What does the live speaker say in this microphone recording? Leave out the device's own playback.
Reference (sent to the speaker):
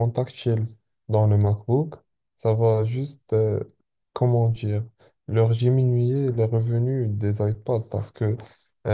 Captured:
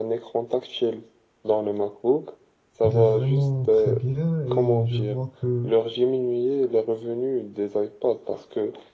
il est vraiment très bien et je vois que

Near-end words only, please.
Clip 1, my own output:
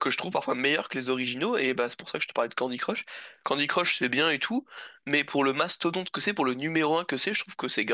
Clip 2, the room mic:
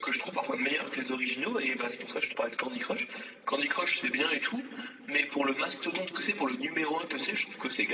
none

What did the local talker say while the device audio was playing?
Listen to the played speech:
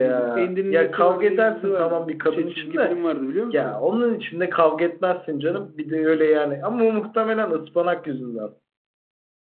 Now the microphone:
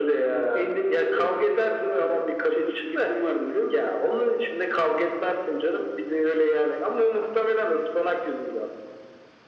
none

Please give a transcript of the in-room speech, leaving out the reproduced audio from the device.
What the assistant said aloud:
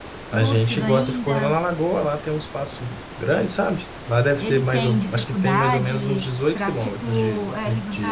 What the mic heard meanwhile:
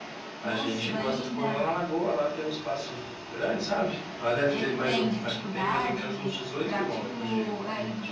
none

